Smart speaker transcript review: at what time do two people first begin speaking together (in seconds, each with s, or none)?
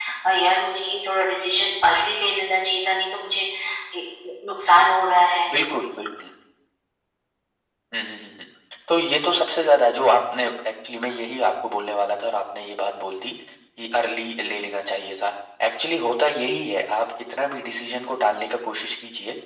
none